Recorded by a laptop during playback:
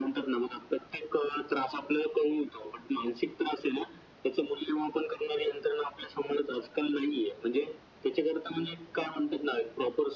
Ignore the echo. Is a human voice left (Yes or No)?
No